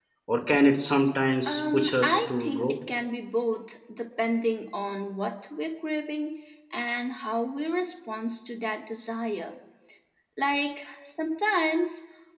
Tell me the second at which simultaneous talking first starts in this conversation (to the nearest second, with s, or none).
1 s